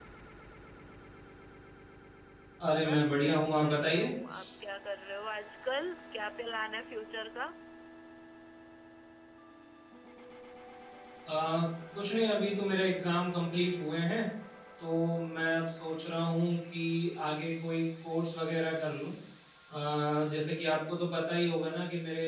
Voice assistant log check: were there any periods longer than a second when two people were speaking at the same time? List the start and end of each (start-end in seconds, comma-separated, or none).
2.8-4.1